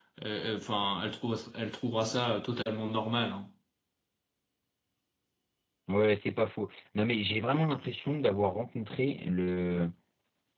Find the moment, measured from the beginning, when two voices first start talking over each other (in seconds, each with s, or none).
none